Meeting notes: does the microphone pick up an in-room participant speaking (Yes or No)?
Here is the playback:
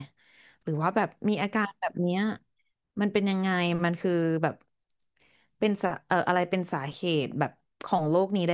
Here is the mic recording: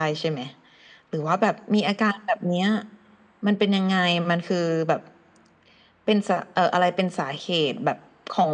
No